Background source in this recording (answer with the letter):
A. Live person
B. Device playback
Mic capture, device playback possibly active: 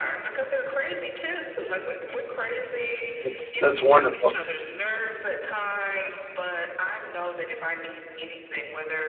B